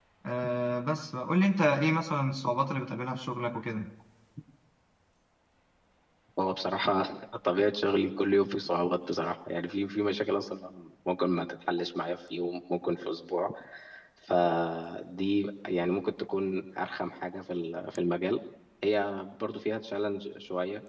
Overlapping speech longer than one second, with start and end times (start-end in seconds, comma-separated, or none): none